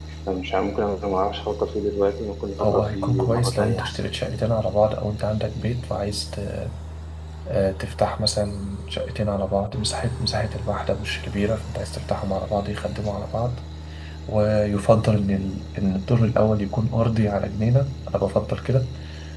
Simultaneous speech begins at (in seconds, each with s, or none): 2.6 s